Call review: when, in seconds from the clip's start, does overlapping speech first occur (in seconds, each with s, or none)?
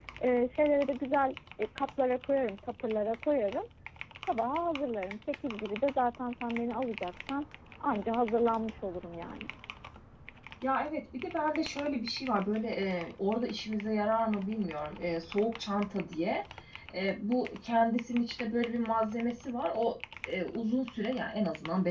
none